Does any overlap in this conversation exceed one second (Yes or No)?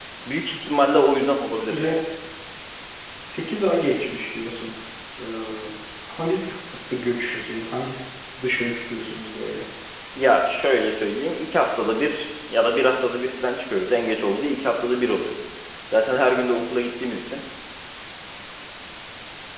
No